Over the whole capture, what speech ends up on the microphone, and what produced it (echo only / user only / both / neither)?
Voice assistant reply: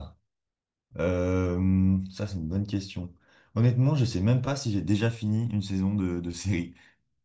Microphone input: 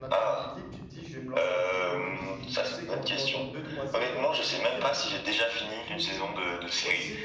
both